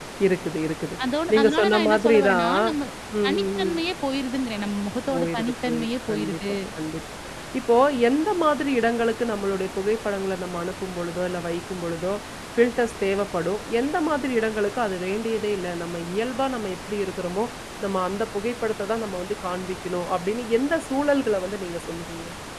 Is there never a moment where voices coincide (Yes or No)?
No